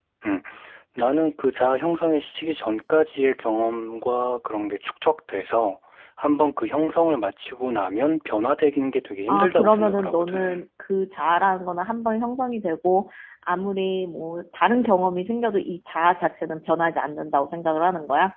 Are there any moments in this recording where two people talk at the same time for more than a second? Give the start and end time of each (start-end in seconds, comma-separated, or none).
9.3-10.6